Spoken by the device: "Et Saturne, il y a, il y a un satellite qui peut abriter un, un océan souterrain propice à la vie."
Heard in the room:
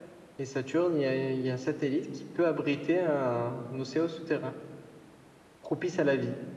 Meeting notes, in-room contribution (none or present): none